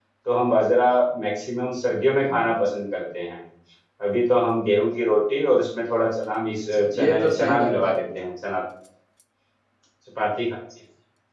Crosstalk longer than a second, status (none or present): present